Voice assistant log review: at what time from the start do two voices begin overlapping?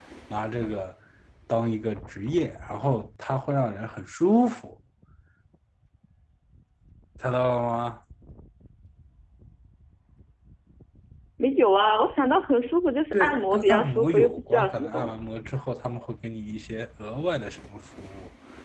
13.1 s

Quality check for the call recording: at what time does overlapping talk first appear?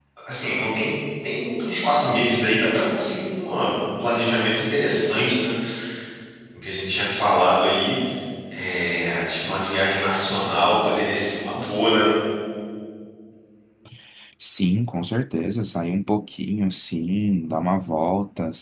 none

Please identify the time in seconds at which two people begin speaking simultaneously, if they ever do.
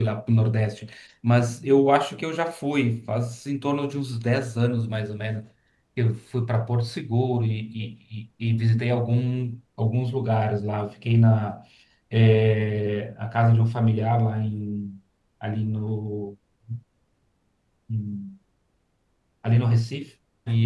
none

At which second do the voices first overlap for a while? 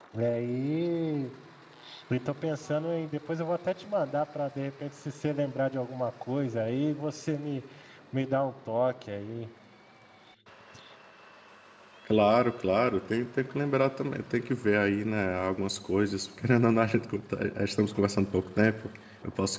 none

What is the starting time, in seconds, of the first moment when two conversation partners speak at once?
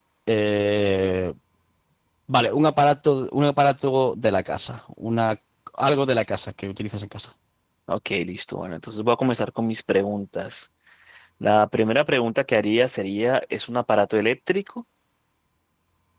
none

